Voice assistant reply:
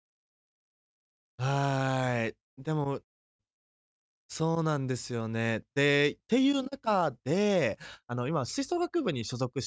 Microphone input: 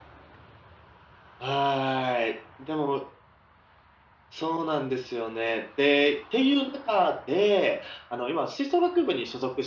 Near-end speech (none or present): none